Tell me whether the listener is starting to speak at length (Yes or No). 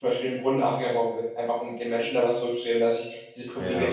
No